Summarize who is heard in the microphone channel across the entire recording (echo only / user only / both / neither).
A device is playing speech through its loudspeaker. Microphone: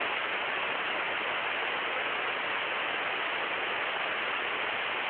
neither